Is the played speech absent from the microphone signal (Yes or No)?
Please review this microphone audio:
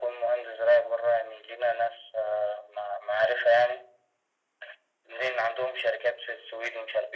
No